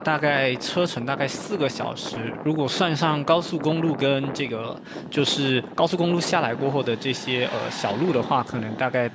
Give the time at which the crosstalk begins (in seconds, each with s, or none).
none